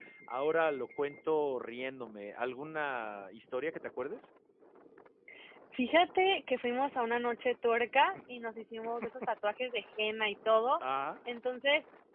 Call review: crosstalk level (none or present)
none